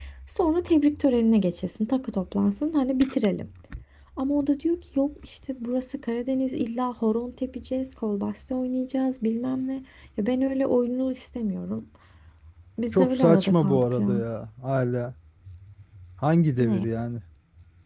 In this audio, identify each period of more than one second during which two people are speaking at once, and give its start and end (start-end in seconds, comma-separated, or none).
12.9-14.2